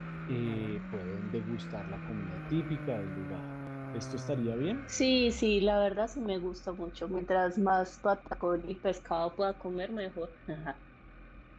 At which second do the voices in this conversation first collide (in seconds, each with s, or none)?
none